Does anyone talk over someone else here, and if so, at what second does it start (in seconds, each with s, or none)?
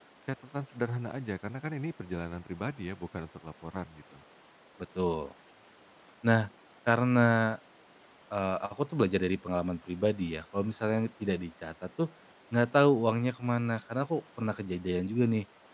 none